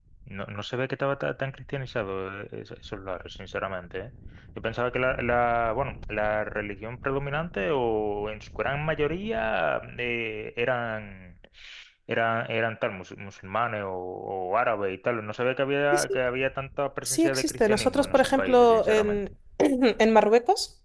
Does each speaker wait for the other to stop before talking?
No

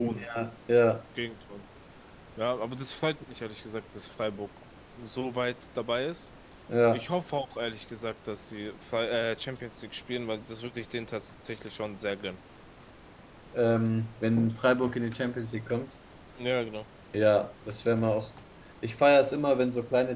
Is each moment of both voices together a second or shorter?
Yes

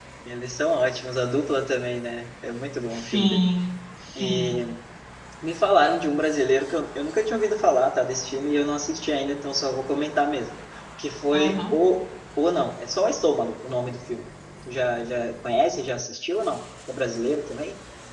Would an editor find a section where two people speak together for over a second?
No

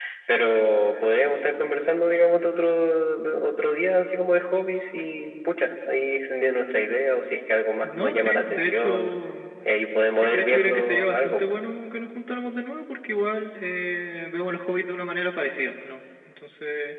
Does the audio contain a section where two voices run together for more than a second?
Yes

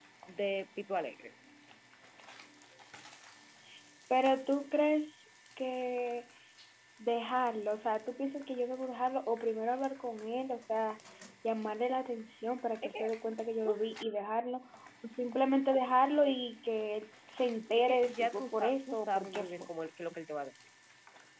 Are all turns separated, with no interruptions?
No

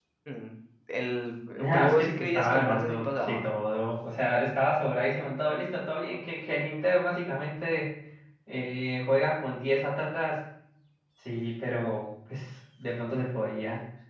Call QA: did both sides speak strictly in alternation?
No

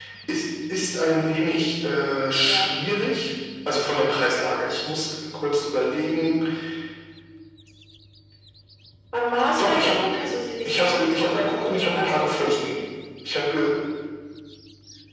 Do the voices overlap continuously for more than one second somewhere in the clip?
Yes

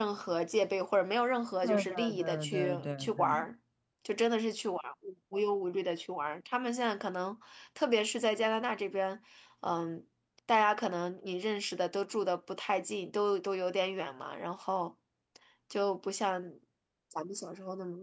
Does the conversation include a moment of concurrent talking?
Yes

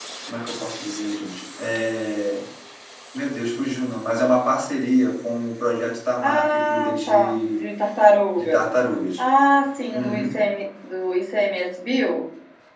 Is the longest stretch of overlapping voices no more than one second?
No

